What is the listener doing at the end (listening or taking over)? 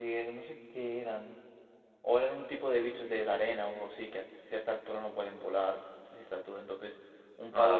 listening